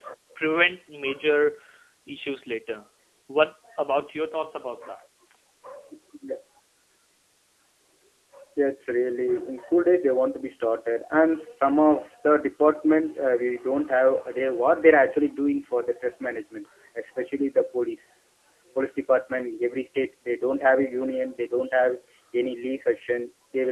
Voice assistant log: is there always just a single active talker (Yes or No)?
Yes